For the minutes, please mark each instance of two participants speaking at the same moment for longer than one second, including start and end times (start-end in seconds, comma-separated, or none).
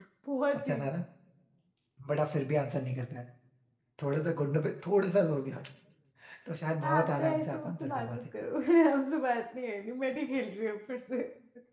6.9-8.2